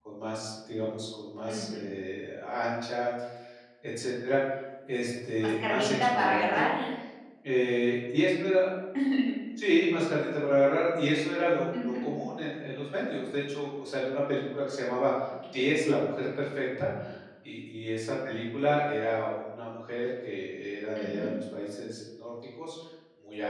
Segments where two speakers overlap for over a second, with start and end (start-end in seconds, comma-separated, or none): 5.4-6.7